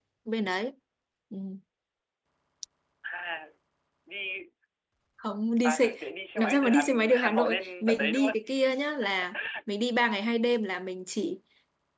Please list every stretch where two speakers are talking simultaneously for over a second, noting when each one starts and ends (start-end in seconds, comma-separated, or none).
6.4-8.3